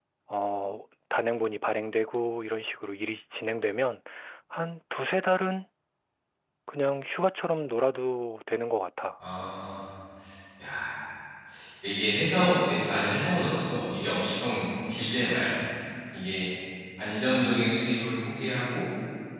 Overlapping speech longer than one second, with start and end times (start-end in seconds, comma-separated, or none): none